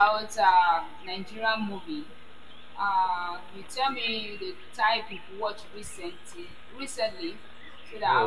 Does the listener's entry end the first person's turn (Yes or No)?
Yes